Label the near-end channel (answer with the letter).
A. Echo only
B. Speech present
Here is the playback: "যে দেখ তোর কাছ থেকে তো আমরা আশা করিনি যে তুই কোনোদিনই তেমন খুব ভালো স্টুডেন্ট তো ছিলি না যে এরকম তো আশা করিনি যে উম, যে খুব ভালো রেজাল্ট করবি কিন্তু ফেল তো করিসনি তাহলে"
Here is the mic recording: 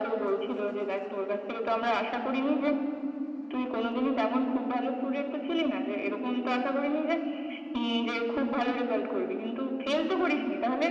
A